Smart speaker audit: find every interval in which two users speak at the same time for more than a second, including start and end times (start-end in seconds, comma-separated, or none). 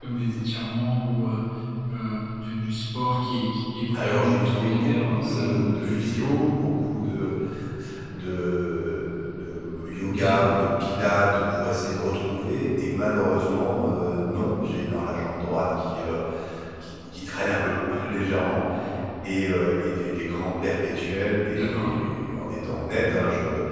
3.9-6.1